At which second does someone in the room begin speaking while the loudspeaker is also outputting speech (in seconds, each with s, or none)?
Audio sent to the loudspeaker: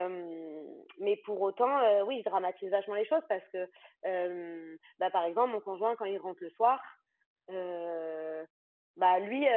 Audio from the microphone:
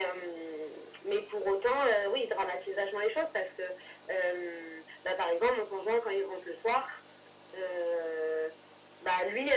none